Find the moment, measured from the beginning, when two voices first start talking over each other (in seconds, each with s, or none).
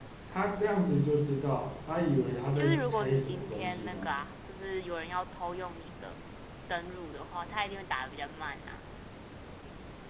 2.6 s